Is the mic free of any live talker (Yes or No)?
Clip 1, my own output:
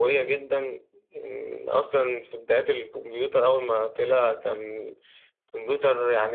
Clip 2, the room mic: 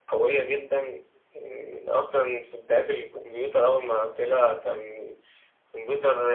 Yes